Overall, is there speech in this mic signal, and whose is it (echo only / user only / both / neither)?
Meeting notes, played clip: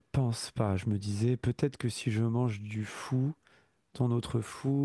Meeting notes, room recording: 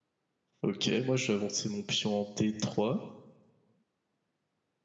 user only